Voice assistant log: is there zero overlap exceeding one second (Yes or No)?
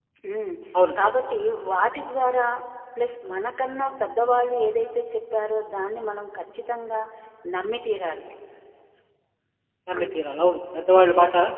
Yes